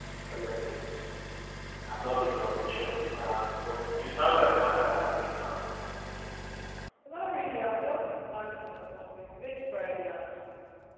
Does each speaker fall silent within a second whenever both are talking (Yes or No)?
Yes